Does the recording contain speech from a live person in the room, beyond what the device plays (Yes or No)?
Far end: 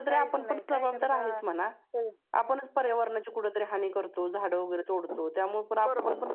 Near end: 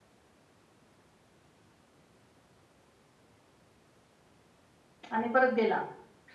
Yes